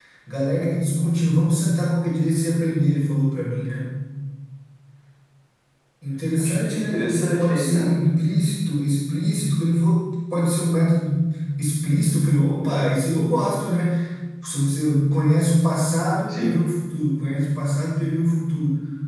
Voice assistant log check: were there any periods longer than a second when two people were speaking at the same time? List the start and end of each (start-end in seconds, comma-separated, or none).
6.4-8.0